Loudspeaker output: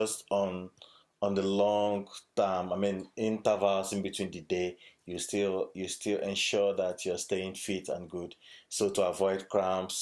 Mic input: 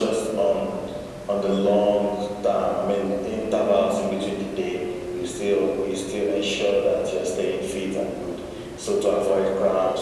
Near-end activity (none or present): none